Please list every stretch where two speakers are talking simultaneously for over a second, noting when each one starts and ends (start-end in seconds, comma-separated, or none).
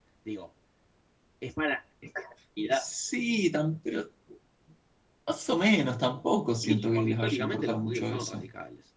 6.6-8.5